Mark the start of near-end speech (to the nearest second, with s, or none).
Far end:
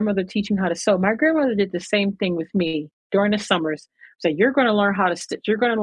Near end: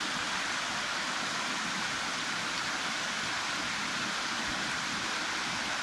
none